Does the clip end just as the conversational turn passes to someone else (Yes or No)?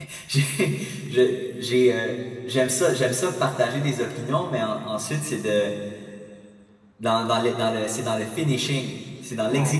No